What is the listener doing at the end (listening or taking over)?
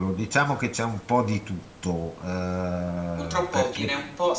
taking over